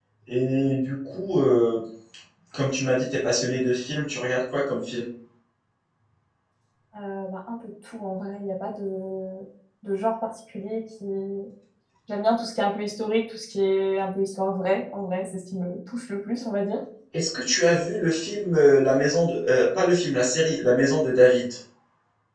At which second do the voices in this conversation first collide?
none

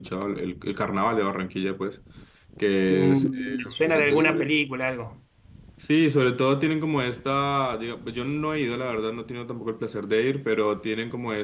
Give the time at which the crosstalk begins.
3 s

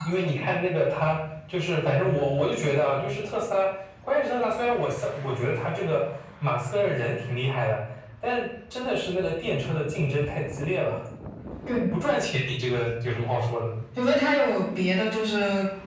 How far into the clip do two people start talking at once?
none

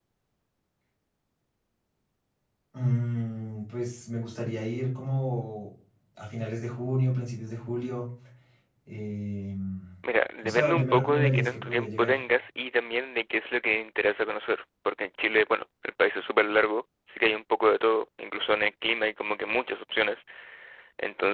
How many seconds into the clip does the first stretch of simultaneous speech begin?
10 s

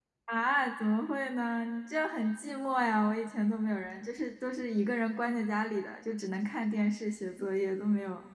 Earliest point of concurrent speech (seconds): none

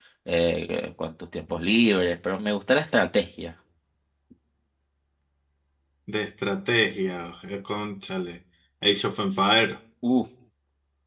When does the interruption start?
none

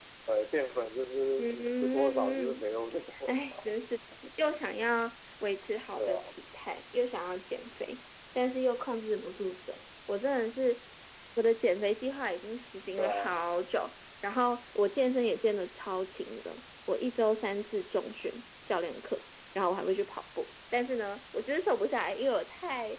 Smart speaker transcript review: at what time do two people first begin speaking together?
1 s

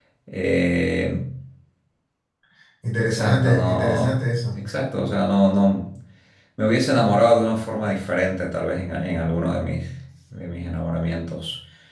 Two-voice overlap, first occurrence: 3 s

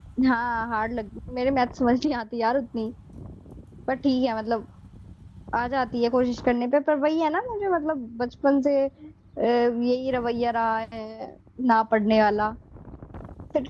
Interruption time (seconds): none

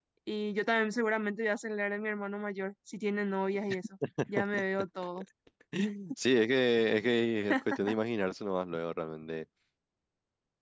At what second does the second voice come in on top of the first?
none

